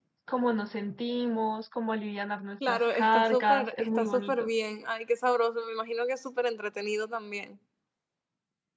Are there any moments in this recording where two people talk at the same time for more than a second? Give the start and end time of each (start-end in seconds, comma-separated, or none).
2.7-4.5